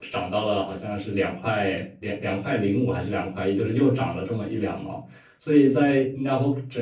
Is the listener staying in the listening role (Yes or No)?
Yes